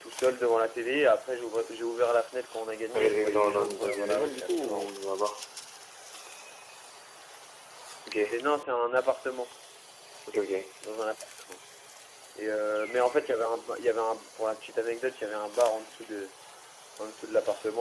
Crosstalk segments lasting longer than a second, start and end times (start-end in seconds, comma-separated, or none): 2.9-4.9